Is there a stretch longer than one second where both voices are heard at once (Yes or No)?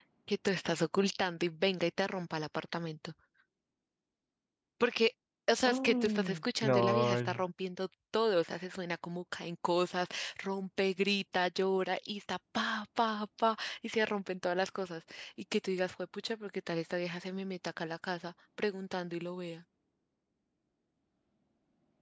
Yes